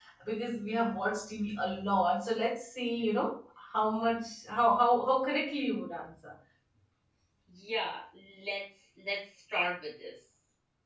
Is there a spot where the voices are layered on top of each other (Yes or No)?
No